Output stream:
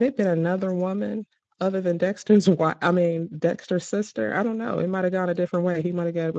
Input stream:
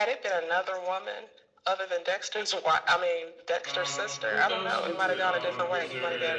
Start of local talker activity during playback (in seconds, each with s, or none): 3.6 s